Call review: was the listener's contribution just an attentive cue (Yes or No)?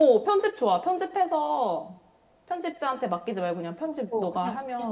No